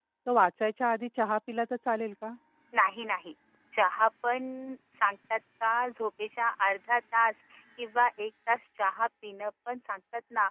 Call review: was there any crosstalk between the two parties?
No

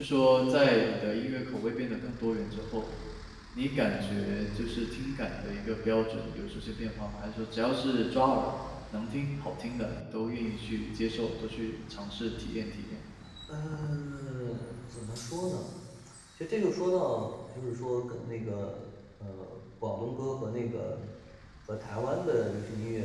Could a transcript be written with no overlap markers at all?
Yes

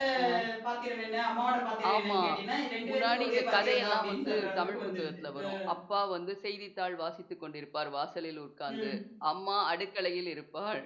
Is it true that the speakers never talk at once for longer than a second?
No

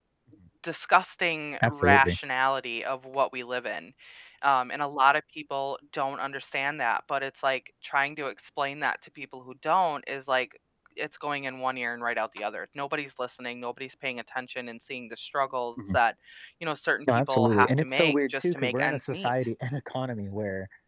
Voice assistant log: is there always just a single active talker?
No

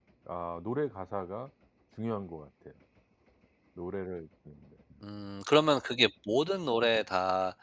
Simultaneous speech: No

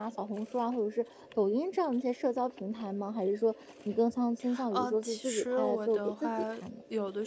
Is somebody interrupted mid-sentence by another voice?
Yes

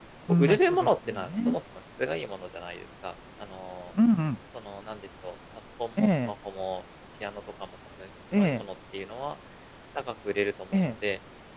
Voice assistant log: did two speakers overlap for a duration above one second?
Yes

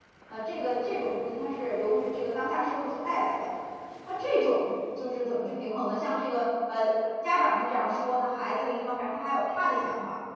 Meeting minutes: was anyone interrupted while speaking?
No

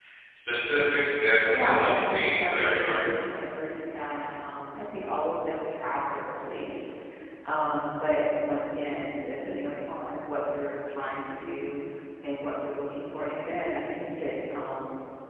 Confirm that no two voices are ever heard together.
No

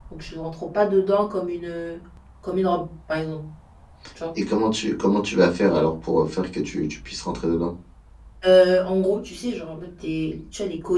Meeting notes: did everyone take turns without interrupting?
Yes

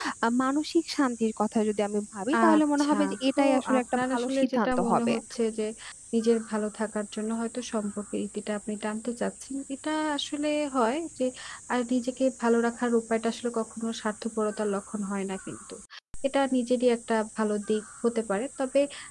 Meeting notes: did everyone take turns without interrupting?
No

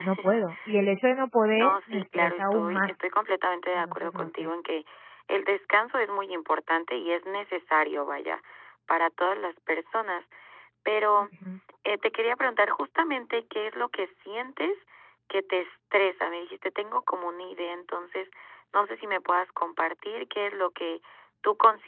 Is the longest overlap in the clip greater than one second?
Yes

